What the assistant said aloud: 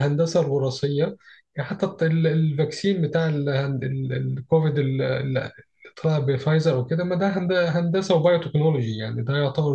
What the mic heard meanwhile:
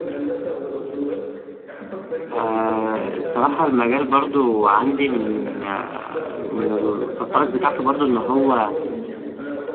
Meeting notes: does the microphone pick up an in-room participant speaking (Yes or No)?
Yes